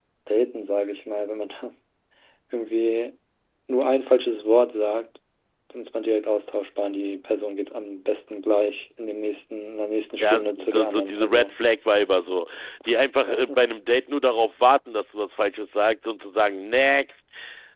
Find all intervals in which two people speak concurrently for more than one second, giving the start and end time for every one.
10.2-11.6

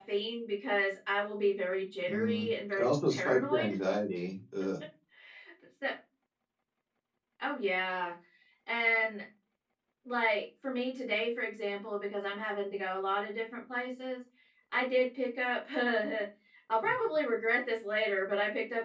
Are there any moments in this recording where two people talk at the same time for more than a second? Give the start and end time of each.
2.1-3.7

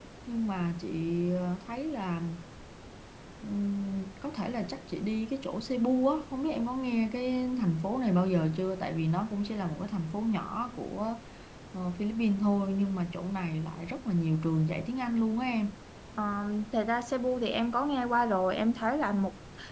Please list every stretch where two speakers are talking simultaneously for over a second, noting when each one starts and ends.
none

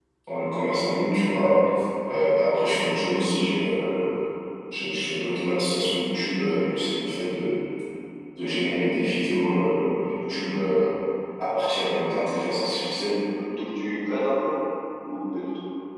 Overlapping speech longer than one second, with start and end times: none

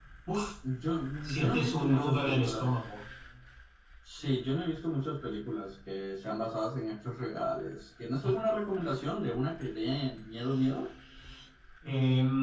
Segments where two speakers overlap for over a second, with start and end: 1.3-2.7

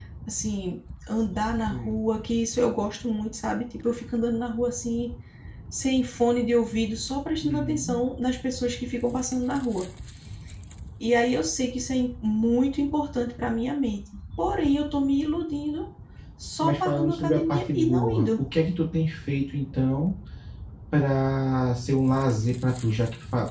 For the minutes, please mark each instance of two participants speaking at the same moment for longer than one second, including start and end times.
16.6-18.4

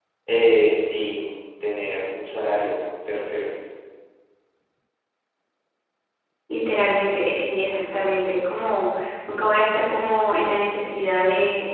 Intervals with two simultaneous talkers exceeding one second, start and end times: none

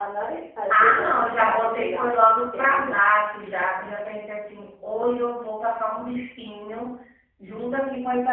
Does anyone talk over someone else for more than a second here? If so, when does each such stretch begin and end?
0.7-3.0

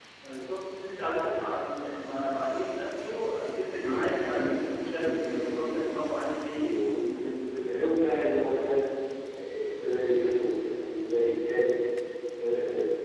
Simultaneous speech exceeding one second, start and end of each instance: 3.8-5.8

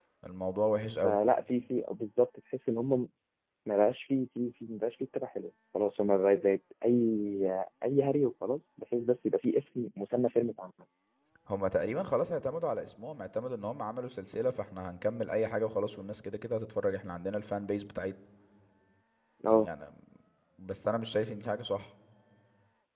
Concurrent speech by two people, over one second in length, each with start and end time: none

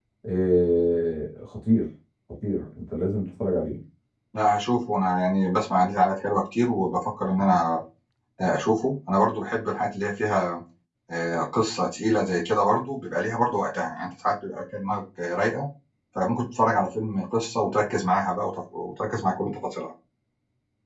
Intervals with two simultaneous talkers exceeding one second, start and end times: none

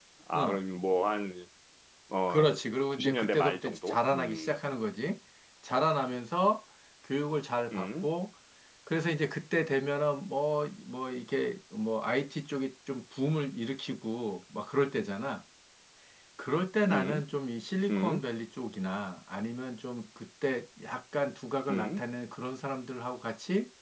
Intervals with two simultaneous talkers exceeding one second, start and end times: 2.9-4.6

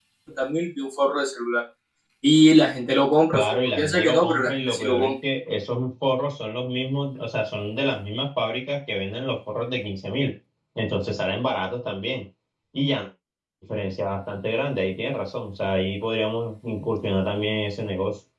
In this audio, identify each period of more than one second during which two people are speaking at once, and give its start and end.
3.3-5.1

